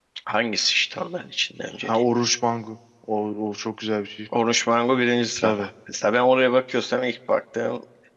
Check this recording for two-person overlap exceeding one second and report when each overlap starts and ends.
none

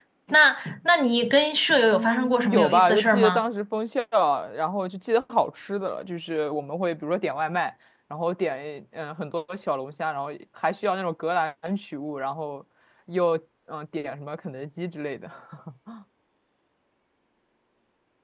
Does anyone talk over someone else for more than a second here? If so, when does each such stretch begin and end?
1.9-3.4

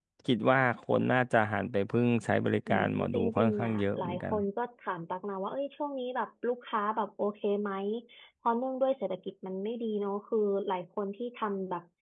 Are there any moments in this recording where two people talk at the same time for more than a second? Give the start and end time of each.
2.7-4.3

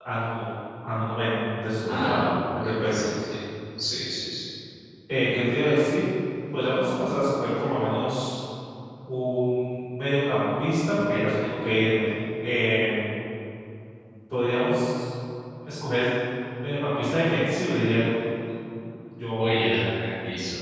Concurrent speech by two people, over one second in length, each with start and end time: 1.9-3.1

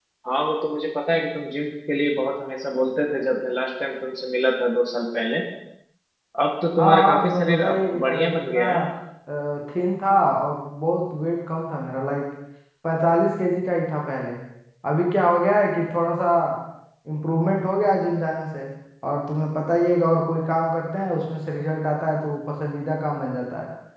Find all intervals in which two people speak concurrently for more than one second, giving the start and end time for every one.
6.8-8.6

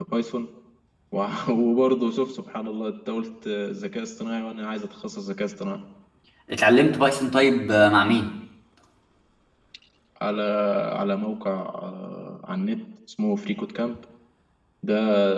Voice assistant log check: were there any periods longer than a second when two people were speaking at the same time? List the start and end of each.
none

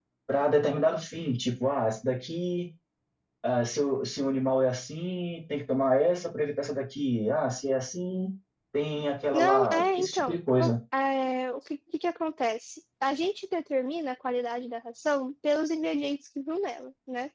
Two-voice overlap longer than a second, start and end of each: 9.3-10.7

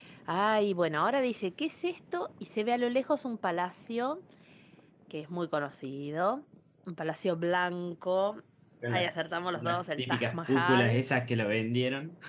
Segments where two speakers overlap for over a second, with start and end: 9.6-11.0

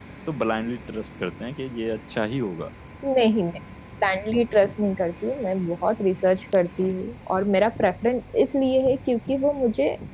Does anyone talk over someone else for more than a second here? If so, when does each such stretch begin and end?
none

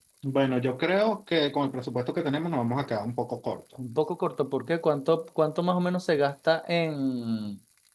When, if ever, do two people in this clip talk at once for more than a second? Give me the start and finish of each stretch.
none

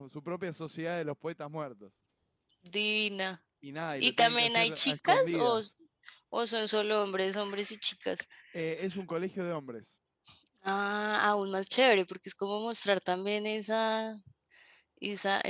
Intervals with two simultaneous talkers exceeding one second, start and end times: 4.0-5.6

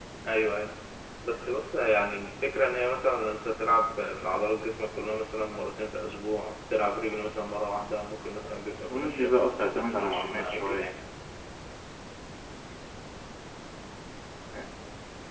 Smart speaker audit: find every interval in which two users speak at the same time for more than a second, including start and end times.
8.9-10.9

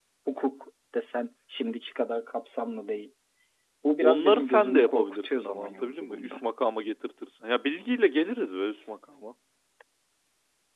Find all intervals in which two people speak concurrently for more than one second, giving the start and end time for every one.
4.0-6.4

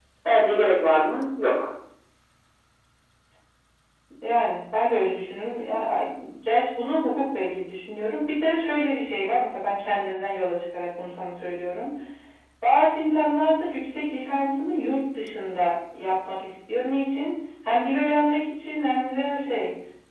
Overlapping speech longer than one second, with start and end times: none

